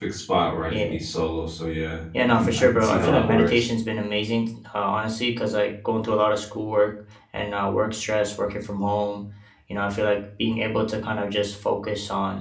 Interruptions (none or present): present